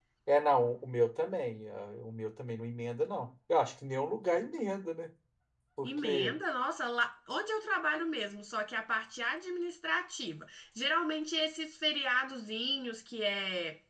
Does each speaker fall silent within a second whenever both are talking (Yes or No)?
Yes